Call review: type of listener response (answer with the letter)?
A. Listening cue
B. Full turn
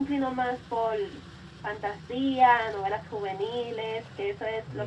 A